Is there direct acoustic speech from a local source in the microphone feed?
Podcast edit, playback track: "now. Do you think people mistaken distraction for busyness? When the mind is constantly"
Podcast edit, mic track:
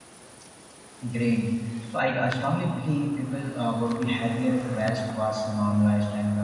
Yes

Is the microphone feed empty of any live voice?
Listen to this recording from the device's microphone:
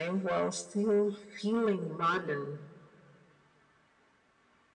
Yes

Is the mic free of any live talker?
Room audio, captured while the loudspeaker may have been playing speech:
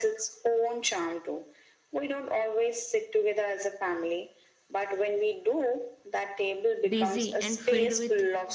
No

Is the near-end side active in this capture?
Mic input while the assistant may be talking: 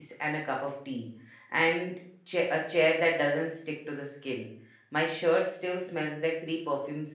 Yes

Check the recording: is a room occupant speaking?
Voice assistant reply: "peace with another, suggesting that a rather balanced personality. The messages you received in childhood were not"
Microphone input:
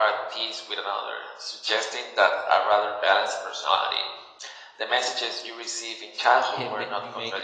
Yes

